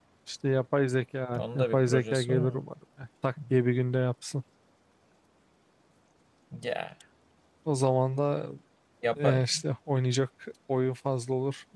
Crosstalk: present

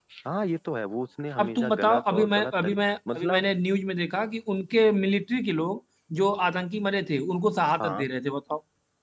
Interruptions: present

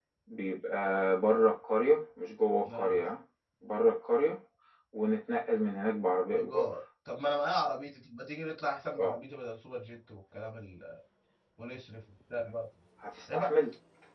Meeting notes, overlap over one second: none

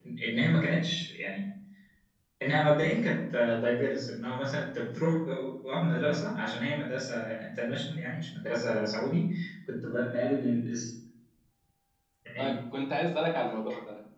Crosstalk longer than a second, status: none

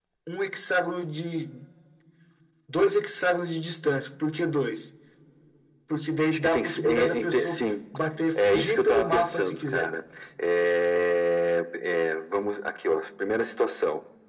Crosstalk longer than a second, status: present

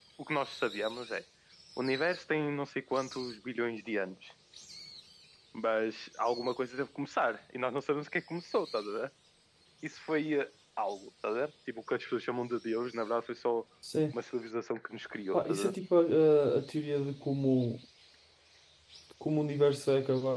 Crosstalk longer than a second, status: none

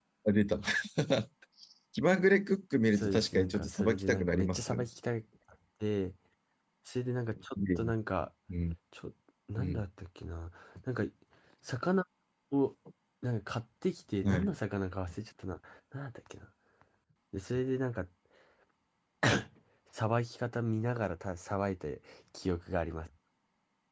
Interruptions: present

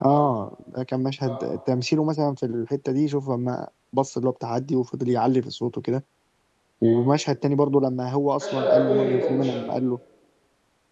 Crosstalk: present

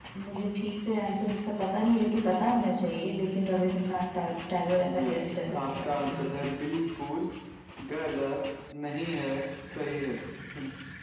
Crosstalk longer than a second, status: present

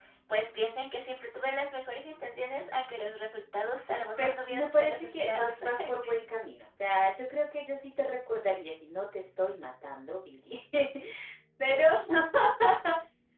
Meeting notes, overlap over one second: present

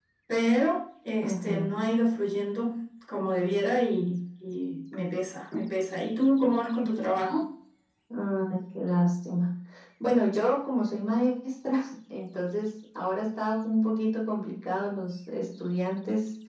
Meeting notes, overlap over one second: none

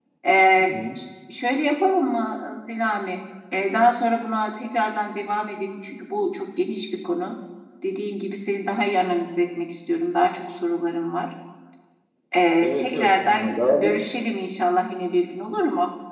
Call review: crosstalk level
present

